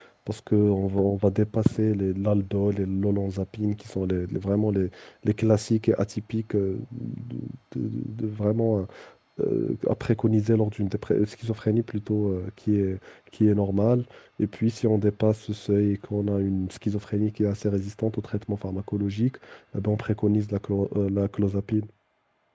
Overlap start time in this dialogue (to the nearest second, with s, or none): none